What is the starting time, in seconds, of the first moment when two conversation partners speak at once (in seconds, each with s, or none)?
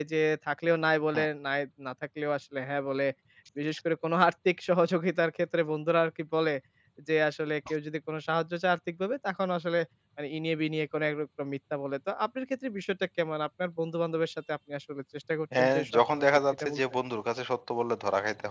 15.5 s